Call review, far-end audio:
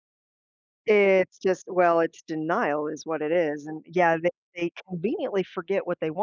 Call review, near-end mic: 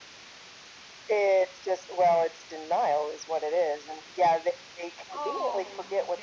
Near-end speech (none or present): present